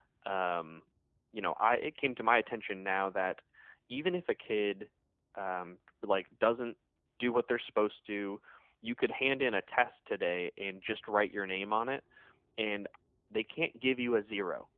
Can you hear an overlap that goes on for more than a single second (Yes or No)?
No